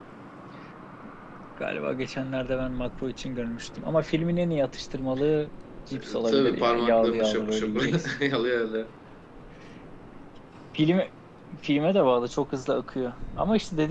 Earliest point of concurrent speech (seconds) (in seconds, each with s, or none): 5.9 s